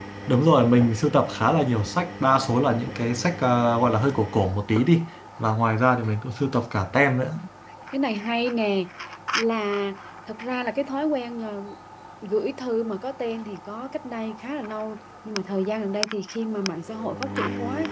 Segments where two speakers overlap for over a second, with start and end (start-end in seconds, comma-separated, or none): none